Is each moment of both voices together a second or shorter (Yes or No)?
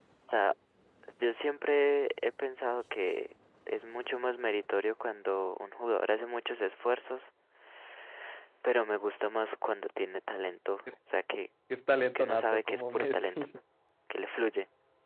No